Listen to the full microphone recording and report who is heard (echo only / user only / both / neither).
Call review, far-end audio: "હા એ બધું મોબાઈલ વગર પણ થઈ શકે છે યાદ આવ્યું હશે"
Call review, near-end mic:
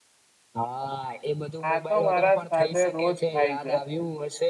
both